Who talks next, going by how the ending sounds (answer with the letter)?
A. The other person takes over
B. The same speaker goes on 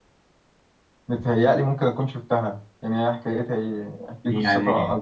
A